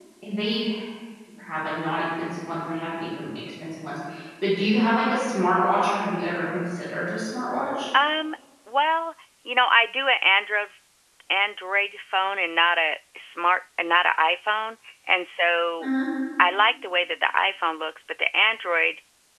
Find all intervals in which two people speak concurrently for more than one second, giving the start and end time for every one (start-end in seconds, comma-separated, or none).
none